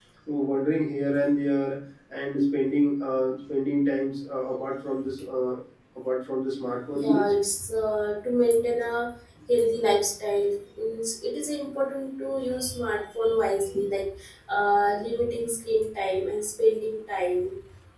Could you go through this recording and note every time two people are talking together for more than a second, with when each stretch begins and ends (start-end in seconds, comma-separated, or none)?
none